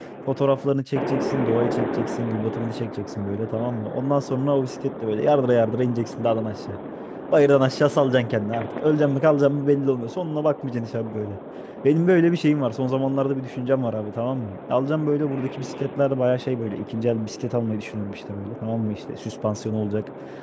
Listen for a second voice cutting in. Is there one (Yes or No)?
No